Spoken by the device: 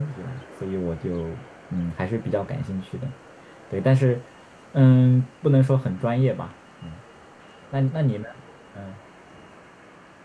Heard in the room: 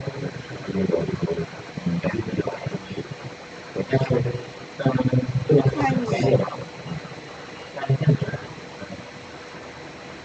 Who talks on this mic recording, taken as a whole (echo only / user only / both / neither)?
both